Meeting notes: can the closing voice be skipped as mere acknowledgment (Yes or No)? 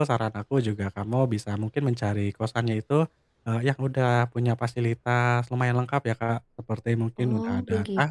Yes